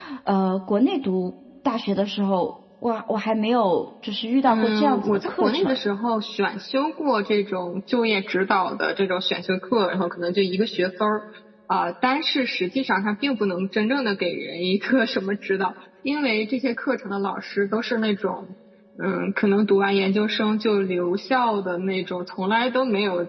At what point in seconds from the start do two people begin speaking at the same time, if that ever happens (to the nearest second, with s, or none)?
4 s